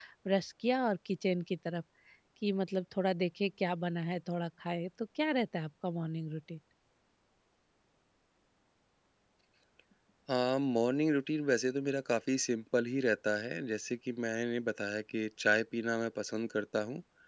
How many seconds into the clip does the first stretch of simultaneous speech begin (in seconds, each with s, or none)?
none